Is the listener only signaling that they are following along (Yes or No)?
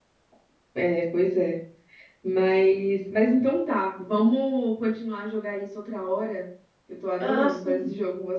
No